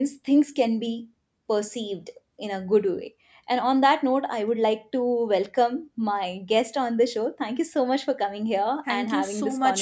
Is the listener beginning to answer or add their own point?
Yes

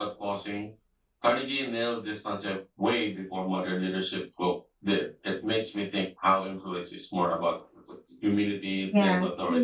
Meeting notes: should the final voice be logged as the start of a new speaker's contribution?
Yes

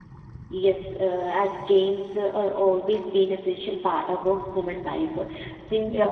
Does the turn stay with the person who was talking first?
Yes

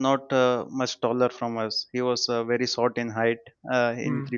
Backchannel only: Yes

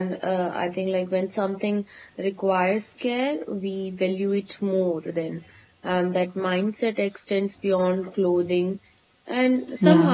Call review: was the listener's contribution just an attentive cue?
Yes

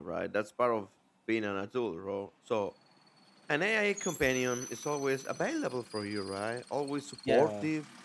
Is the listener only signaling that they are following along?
Yes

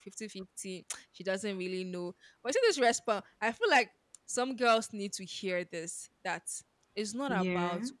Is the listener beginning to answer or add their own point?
No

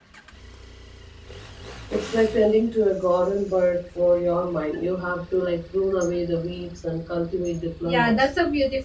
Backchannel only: No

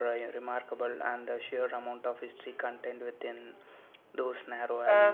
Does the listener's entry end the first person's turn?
Yes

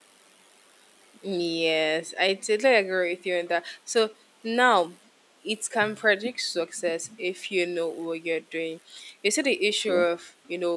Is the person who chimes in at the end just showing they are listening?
Yes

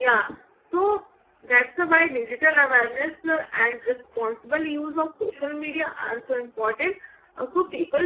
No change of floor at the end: Yes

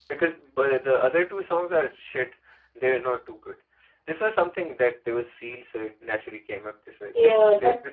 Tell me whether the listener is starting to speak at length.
Yes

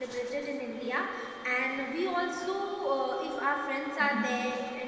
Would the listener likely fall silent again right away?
Yes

